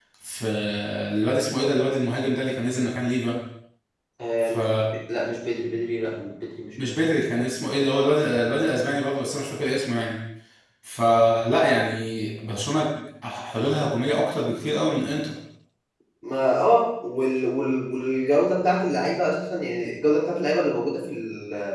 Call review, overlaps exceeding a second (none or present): none